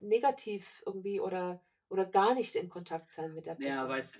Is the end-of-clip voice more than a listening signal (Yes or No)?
Yes